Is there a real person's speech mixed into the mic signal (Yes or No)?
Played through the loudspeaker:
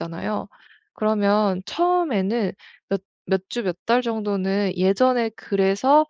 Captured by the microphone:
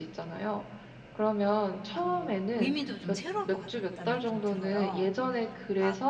Yes